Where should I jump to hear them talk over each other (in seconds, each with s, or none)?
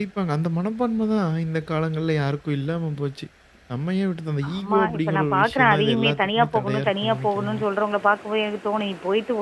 4.5 s